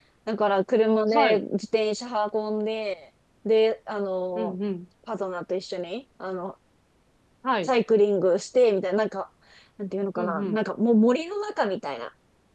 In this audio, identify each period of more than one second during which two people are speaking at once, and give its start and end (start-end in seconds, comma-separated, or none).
none